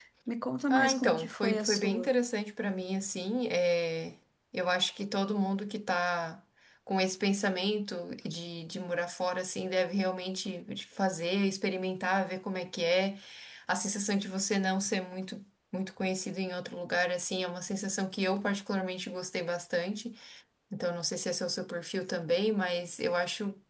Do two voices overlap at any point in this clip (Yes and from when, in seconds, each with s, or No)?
Yes, from 0.7 s